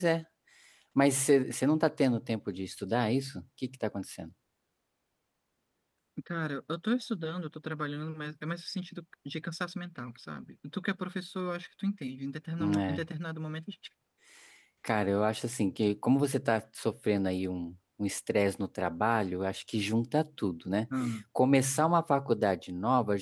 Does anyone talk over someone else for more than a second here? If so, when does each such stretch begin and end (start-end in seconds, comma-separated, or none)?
none